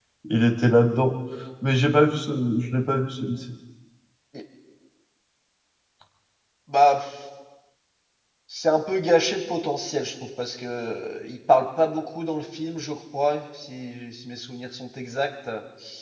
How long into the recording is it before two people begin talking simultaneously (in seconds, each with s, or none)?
none